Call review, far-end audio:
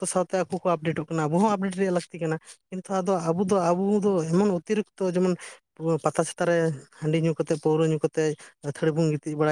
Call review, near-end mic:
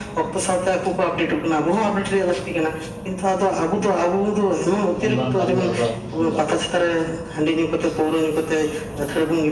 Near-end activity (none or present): present